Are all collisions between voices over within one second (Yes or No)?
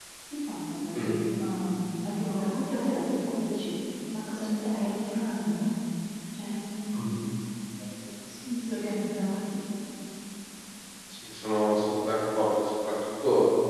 Yes